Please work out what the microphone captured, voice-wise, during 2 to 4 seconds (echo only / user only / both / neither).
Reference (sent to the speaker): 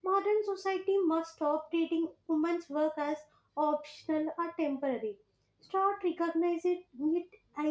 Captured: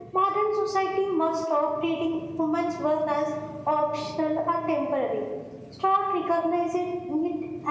echo only